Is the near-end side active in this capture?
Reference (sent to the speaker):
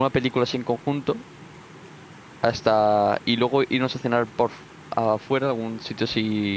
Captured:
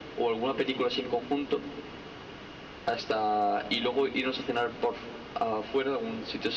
No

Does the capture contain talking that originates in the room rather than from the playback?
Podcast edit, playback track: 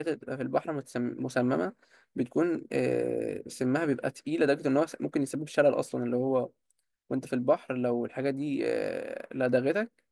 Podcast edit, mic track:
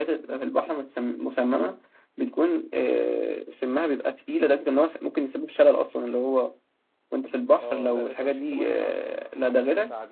Yes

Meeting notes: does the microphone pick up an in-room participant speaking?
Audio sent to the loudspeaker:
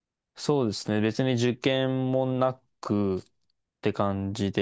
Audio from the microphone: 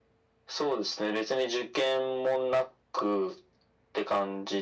No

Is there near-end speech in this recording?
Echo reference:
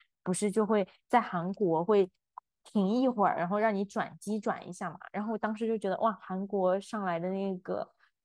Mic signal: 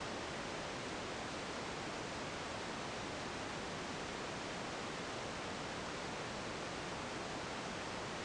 No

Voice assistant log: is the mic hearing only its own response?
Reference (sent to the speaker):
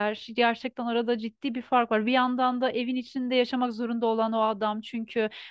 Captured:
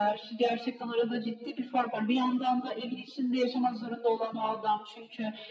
Yes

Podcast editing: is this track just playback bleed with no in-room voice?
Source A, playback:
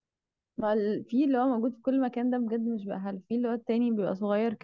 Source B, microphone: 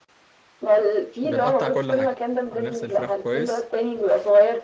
No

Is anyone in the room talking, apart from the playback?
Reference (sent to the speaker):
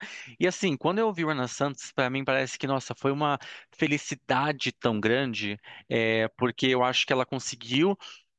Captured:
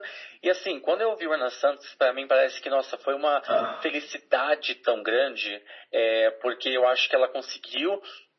Yes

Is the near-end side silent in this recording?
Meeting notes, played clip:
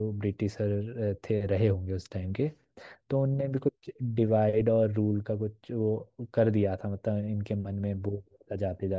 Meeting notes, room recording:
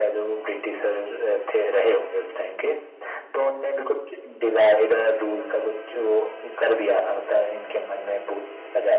Yes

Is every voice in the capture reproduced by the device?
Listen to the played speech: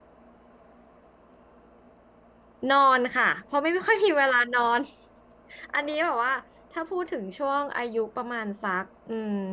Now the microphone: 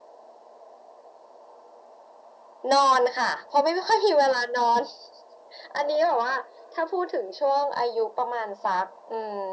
Yes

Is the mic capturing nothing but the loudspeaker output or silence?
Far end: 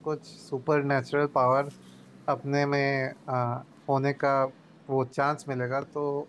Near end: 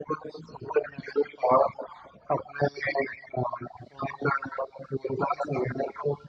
Yes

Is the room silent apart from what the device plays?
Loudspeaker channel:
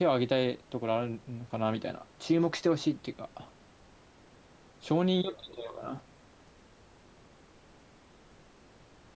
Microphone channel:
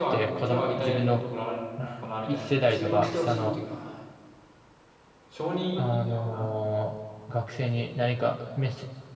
No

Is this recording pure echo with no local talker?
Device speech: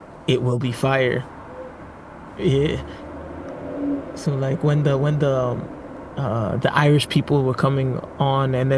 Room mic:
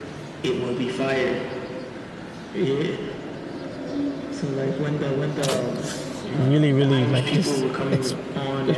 No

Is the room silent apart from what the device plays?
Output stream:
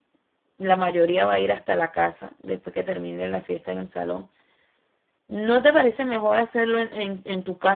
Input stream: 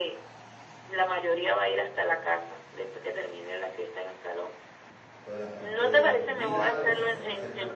No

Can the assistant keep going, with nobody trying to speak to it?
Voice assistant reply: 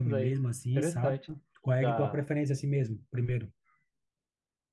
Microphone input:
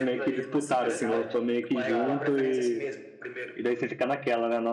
No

